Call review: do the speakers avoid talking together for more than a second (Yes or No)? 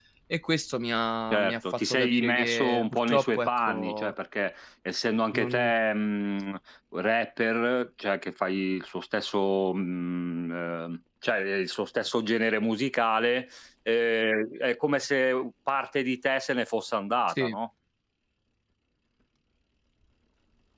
No